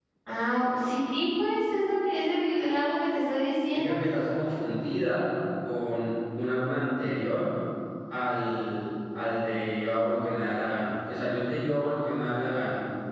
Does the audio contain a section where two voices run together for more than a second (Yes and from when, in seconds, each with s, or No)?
No